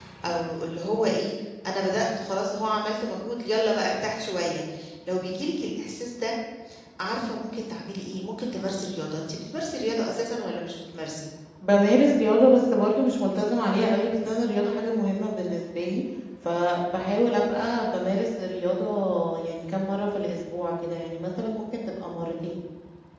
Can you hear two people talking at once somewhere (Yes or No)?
No